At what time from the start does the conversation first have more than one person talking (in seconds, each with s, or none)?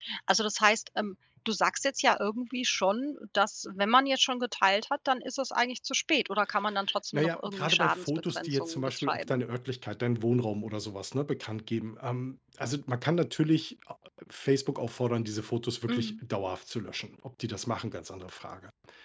7.1 s